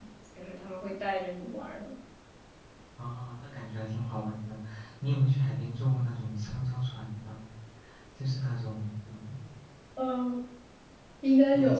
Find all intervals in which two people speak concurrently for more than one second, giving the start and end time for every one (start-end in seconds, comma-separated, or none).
none